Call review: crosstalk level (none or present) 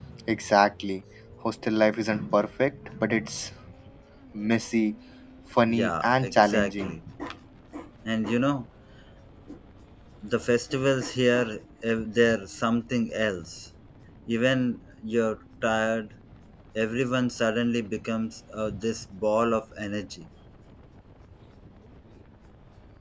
present